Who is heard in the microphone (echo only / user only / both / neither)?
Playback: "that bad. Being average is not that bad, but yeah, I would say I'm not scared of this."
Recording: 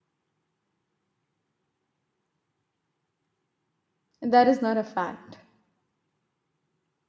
user only